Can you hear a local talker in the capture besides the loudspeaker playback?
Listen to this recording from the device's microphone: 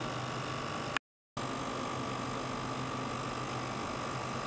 No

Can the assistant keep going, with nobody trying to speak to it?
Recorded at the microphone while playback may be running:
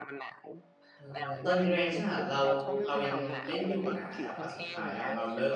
No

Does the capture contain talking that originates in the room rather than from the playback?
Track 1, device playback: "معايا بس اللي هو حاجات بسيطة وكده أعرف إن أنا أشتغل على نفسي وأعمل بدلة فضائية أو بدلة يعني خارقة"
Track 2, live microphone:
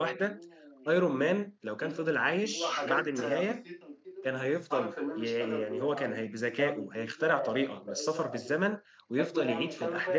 Yes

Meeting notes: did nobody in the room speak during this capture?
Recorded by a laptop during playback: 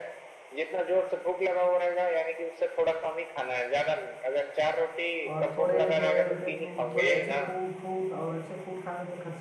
No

